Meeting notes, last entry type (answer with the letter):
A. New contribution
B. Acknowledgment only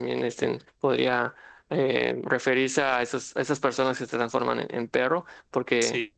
A